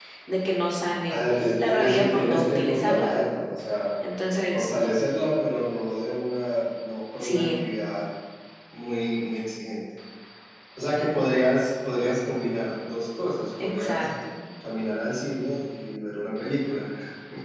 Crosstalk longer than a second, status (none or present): present